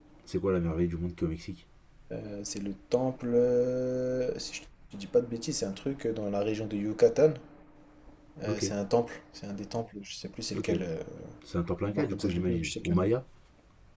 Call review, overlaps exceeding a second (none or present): present